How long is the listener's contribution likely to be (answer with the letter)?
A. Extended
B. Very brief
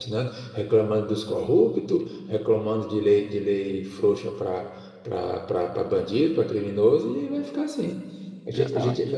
B